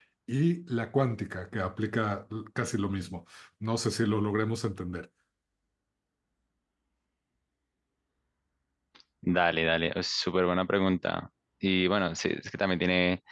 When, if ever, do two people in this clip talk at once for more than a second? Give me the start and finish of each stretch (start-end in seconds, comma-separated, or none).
none